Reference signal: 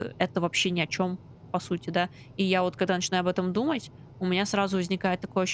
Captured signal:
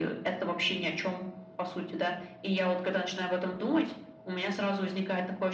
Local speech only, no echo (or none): none